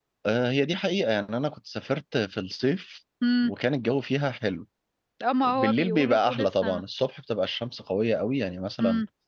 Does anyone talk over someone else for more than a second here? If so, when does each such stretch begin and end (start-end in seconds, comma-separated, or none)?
5.4-6.8